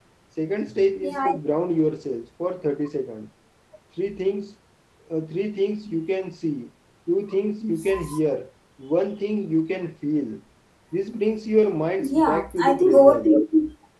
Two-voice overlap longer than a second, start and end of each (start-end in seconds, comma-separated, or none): 12.0-13.3